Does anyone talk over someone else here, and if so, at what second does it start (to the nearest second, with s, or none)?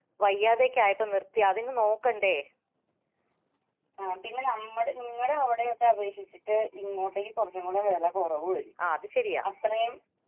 none